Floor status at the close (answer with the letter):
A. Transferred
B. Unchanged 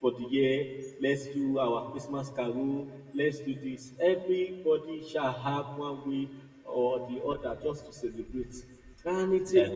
B